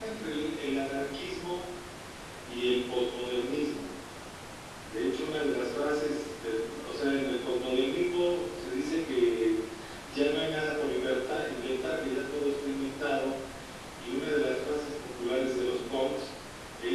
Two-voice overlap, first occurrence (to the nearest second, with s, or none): none